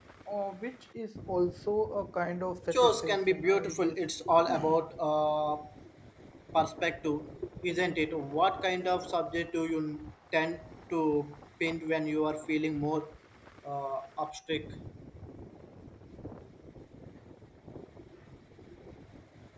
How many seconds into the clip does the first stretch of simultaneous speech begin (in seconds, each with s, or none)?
2.7 s